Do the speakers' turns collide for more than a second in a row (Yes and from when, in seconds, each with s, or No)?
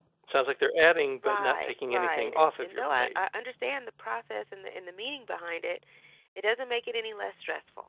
Yes, from 1.2 s